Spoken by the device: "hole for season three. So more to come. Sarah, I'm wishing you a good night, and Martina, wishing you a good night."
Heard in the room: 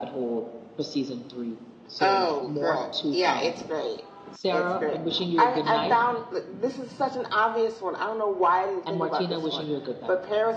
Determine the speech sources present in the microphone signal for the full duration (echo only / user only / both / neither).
both